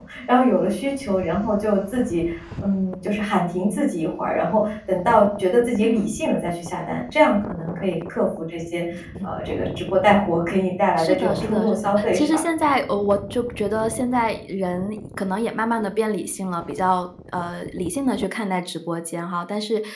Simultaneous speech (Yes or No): Yes